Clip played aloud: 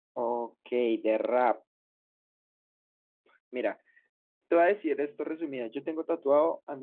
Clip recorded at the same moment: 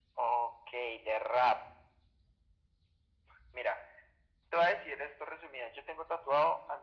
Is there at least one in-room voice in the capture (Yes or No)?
No